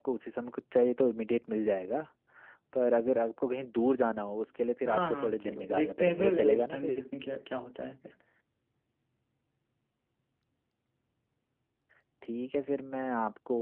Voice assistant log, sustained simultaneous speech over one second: present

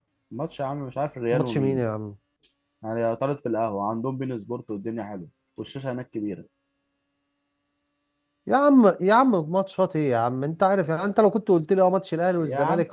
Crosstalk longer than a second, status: none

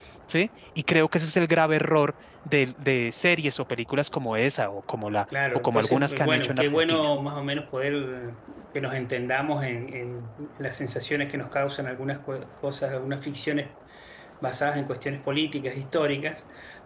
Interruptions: present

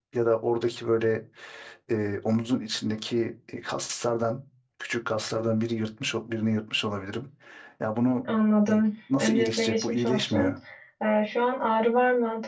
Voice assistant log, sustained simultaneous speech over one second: present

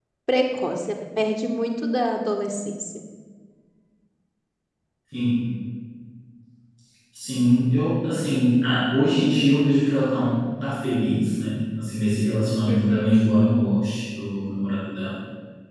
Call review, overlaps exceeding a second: none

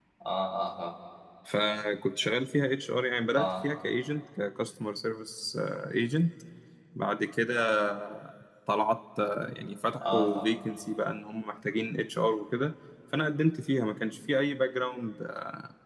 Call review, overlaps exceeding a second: none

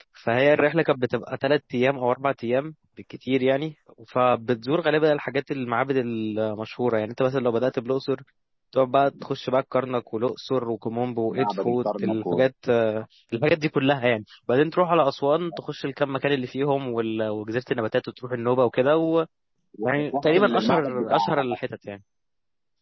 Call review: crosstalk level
present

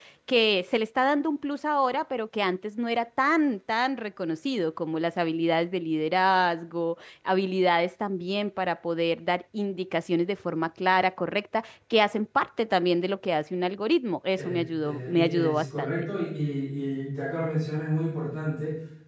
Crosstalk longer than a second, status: present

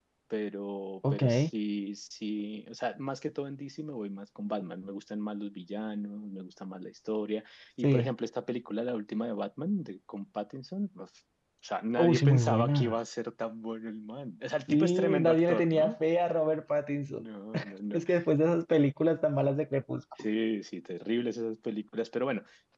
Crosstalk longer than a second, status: present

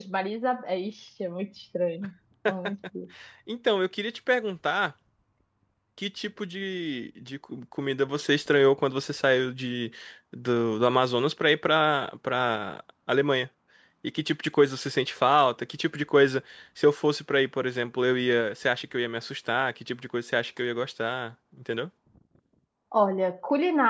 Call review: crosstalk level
none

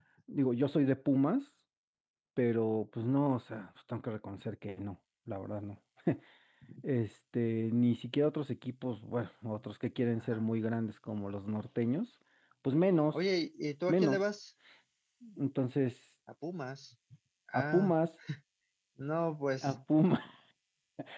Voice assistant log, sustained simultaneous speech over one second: none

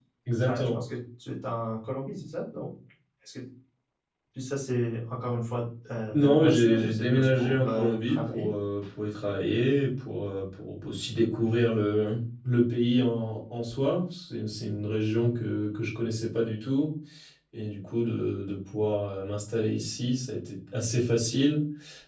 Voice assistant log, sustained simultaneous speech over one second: present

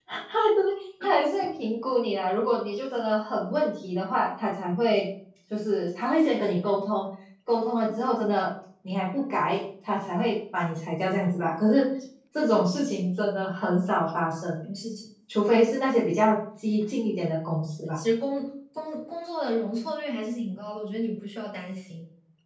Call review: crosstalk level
none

